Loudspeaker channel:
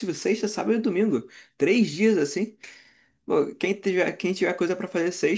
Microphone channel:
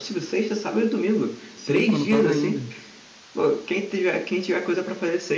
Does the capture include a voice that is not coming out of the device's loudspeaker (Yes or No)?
Yes